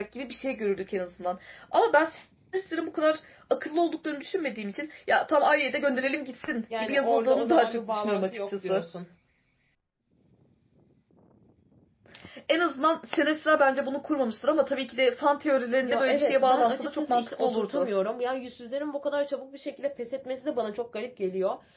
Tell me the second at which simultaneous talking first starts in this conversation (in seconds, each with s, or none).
6.8 s